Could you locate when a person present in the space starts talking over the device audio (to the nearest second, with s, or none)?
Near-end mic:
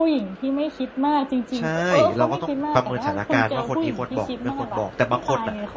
2 s